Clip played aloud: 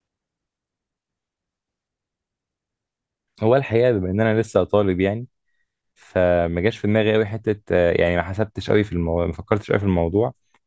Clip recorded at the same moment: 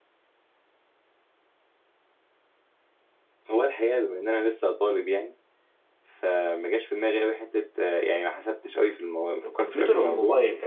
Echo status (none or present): present